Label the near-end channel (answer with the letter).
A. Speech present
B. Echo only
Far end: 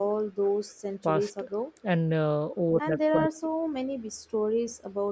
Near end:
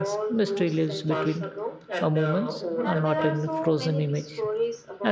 A